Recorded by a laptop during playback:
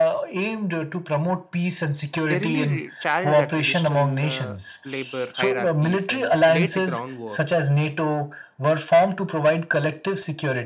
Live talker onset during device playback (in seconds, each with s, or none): 2.2 s